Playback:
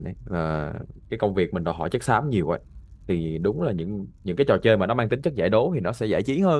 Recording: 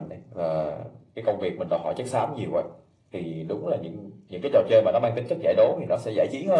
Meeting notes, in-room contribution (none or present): none